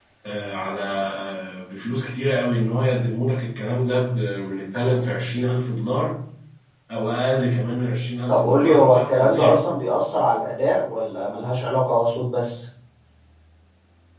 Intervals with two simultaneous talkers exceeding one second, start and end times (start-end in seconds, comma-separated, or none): 8.3-9.6